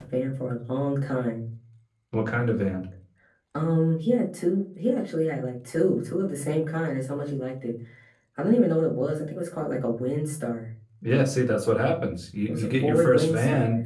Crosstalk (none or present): present